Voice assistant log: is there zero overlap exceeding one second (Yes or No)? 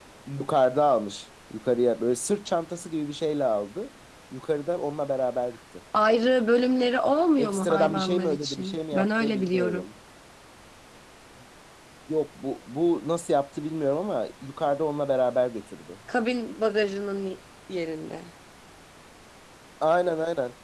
No